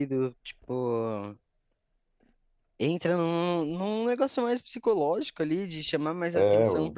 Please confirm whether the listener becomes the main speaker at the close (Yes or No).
No